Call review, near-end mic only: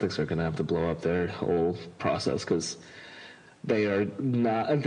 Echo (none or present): present